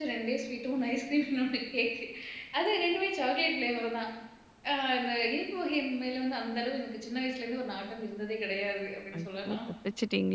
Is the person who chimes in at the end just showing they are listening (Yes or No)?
No